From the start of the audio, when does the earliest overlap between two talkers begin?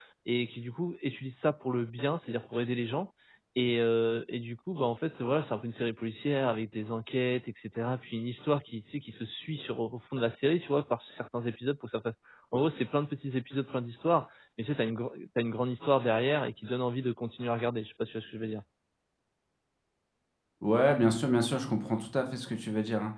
none

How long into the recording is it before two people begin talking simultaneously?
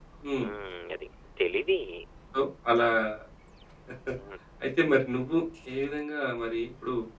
none

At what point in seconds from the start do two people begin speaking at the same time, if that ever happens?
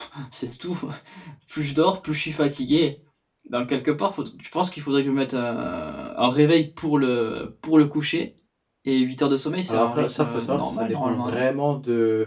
10 s

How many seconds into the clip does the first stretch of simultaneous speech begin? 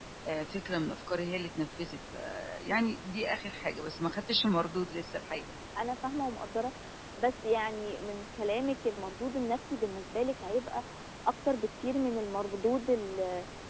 none

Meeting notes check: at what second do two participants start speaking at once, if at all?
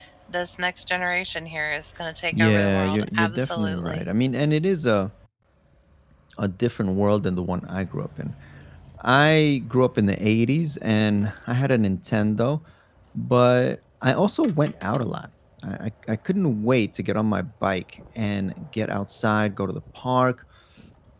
2 s

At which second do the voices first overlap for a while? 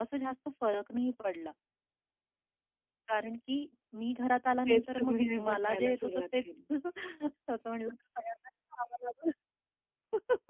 5 s

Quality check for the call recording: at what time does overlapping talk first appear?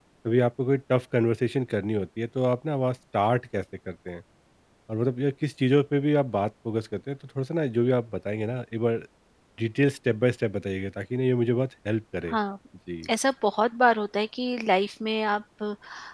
none

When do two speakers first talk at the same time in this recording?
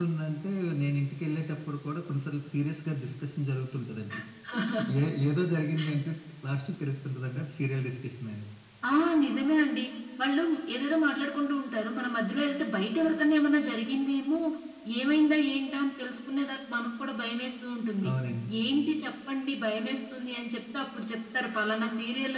none

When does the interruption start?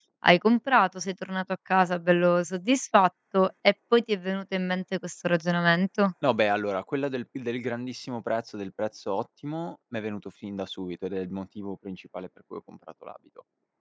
none

